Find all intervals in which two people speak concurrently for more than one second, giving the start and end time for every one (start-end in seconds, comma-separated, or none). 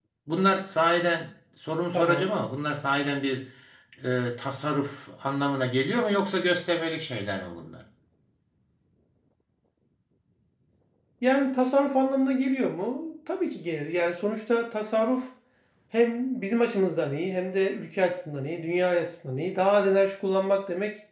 none